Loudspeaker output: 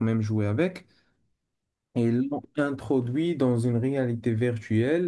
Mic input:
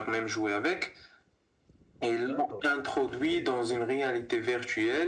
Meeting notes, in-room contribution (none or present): present